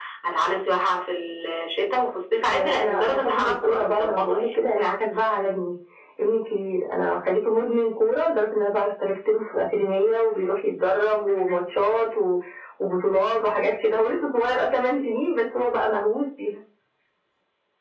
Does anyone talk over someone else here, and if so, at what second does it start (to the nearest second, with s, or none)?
2 s